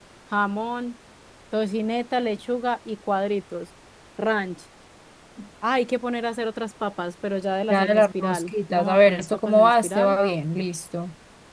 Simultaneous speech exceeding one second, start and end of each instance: 7.7-10.2

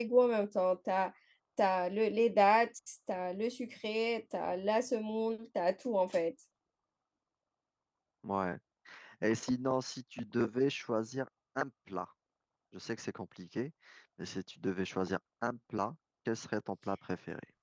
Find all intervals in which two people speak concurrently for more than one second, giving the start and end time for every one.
none

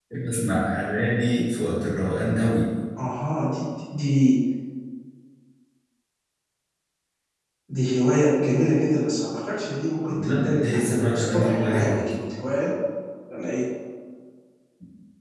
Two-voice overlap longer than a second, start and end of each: 10.1-12.1

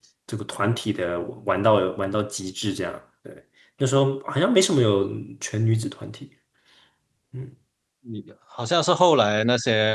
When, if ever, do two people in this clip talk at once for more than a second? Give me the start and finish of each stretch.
none

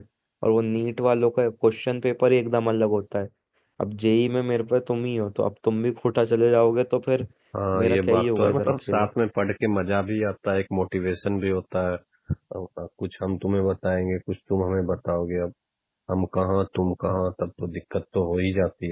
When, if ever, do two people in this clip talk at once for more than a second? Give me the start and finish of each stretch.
7.8-9.1

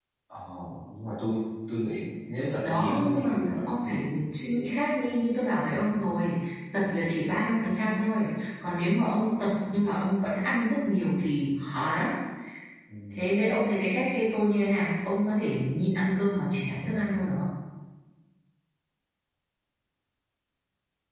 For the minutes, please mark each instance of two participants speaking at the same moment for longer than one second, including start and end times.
2.6-4.1

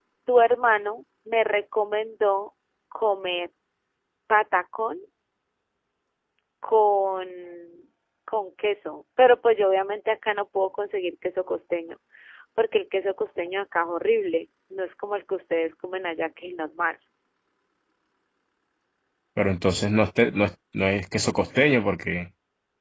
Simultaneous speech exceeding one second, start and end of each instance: none

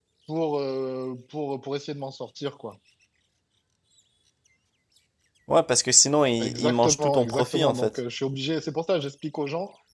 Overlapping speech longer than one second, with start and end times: 6.4-7.9

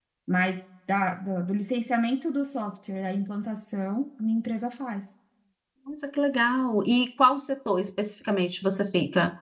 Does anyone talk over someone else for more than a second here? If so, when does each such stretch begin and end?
none

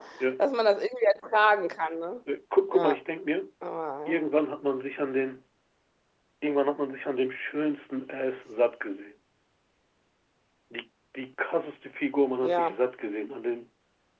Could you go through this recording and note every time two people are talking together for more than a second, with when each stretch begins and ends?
none

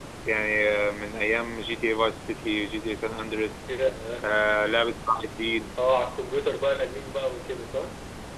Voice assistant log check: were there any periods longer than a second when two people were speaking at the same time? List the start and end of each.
none

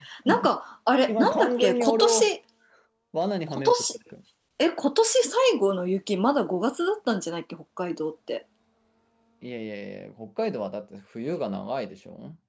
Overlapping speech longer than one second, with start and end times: 1.0-2.3

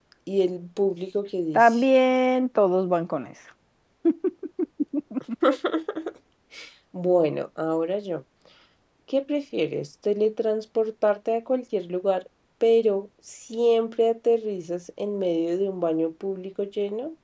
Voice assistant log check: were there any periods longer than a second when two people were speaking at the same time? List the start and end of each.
none

